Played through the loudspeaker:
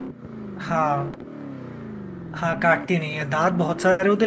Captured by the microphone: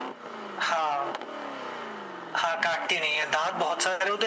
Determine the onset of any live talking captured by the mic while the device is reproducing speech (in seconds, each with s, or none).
none